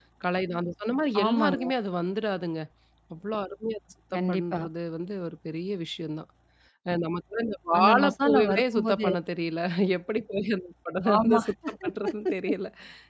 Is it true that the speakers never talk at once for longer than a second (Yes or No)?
No